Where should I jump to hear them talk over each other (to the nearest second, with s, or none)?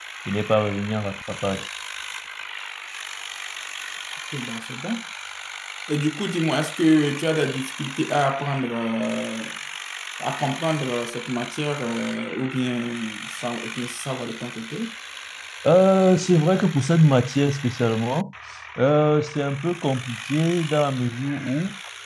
none